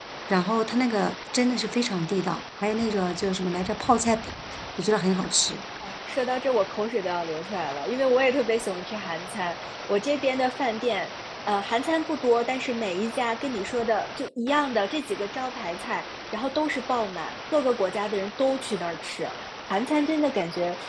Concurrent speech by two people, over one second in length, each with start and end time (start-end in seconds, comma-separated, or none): none